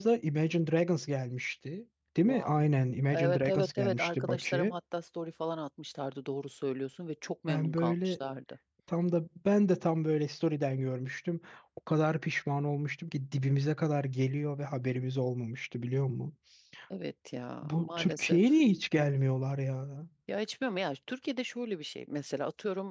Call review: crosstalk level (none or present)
present